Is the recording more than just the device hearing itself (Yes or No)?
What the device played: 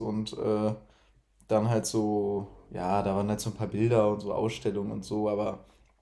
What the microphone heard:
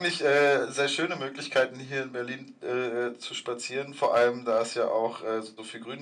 Yes